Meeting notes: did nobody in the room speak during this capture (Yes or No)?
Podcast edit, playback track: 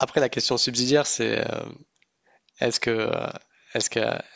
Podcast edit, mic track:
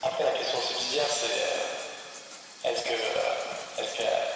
Yes